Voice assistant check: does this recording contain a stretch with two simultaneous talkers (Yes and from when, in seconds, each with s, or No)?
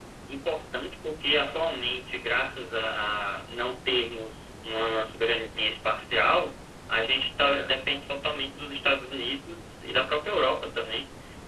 No